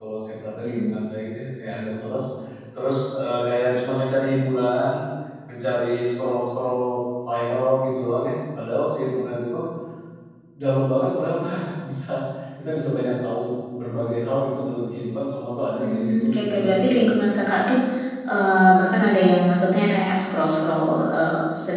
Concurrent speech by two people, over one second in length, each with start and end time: 15.8-17.1

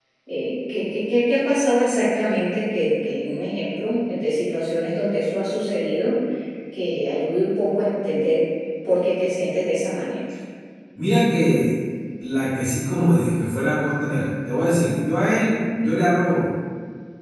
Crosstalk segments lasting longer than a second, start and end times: none

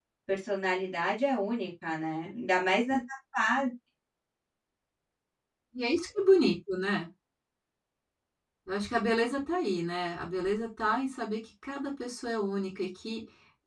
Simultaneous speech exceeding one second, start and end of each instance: none

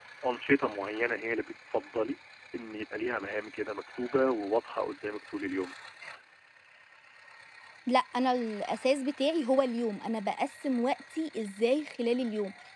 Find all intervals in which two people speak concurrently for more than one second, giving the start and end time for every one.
none

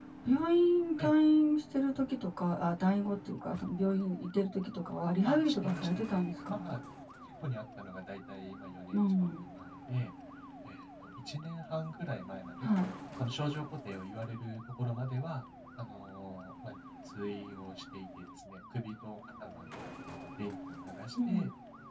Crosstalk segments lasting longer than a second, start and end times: 5.2-6.8

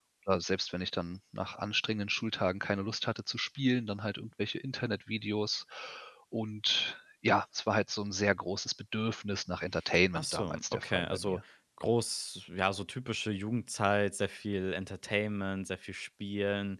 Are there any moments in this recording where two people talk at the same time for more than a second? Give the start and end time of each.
10.1-11.4

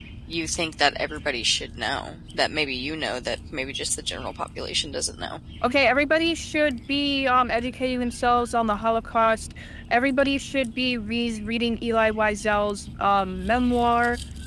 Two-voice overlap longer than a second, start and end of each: none

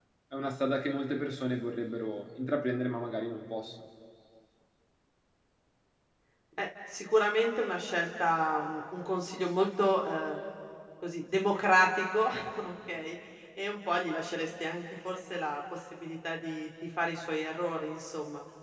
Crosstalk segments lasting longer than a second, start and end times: none

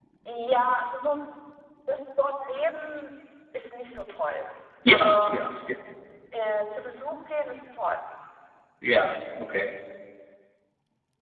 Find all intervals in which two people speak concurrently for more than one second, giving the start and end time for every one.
none

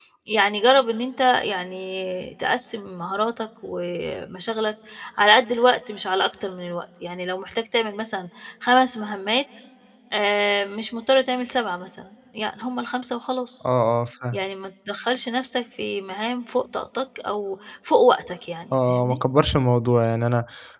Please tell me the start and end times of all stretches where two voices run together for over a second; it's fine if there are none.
none

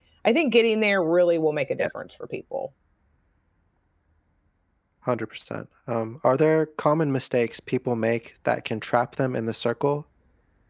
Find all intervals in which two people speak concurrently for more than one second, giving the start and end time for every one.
none

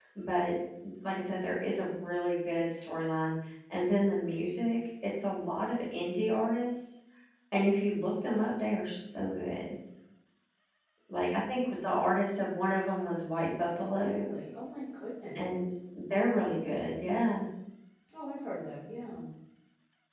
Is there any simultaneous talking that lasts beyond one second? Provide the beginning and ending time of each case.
none

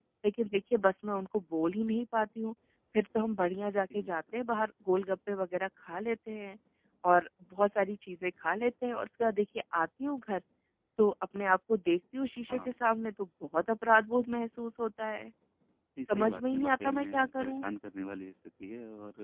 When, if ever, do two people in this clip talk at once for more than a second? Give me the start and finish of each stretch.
16.1-17.6

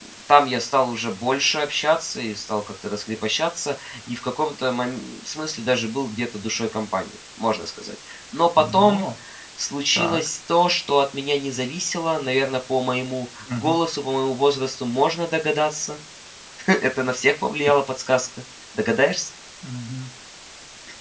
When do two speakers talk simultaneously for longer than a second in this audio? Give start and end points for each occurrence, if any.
none

